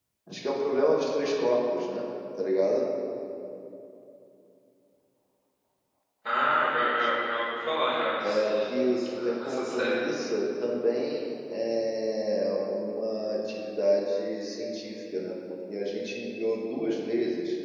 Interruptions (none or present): present